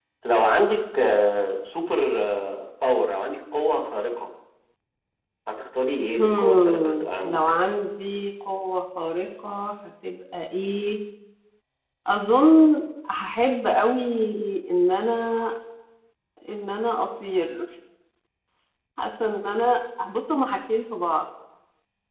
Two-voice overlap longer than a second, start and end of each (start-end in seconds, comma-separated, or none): 6.2-7.5